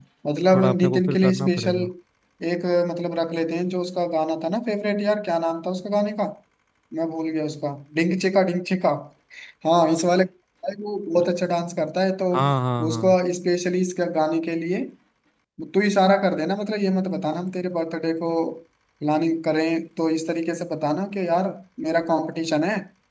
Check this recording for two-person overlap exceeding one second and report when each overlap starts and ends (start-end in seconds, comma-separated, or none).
0.5-1.8